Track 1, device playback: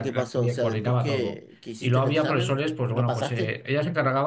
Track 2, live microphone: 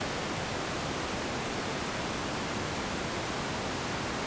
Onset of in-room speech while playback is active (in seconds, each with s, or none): none